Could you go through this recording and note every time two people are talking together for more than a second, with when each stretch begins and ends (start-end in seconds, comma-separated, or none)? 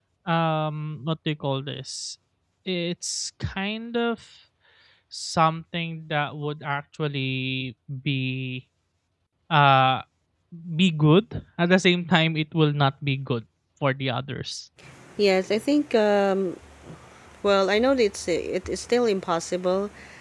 none